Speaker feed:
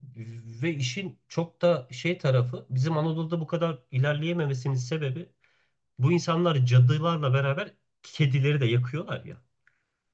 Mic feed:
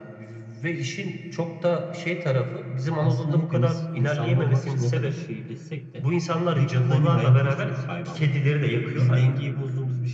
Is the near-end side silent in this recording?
No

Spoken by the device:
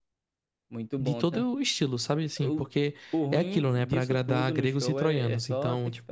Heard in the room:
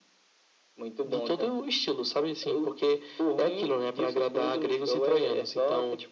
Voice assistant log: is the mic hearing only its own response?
Yes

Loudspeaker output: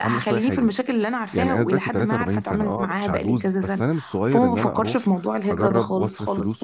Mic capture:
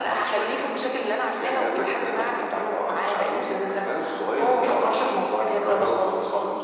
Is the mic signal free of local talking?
Yes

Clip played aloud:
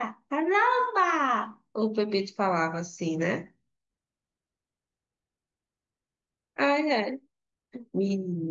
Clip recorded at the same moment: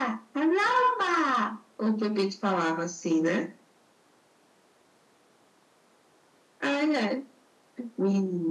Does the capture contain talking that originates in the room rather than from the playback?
No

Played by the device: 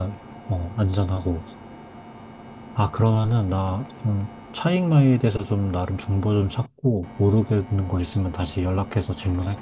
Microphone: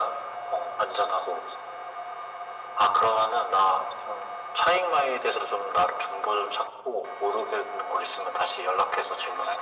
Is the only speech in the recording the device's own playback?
Yes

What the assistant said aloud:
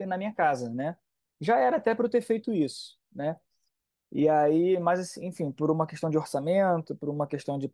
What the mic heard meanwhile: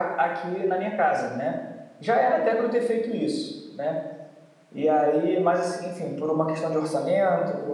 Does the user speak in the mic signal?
No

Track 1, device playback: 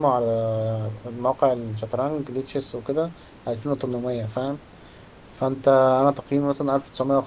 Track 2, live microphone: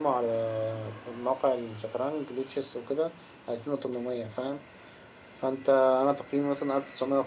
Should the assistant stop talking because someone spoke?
No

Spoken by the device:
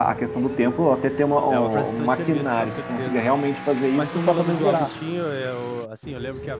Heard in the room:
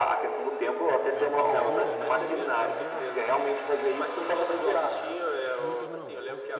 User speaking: Yes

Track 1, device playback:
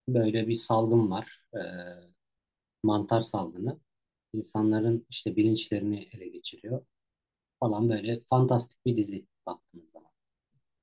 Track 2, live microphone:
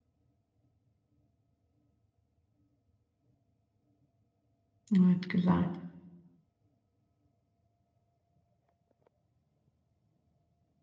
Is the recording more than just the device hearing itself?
Yes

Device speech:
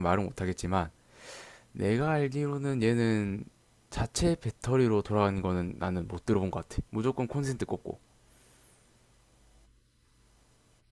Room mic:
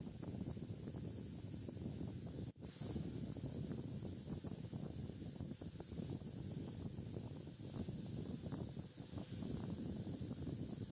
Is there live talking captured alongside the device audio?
No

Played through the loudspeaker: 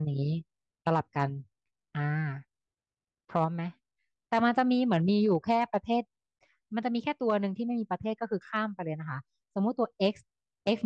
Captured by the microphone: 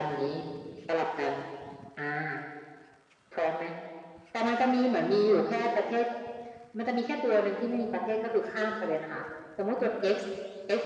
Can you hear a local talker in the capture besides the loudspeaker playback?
No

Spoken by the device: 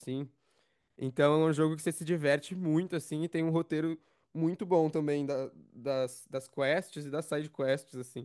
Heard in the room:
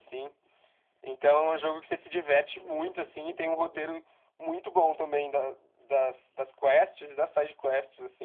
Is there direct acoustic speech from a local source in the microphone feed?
No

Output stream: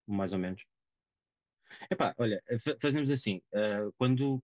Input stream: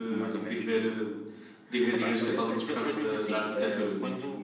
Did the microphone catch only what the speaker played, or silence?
No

